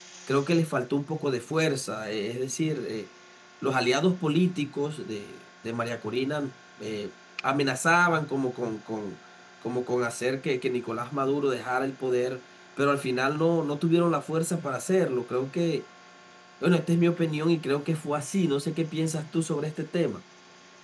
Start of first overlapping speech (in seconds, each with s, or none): none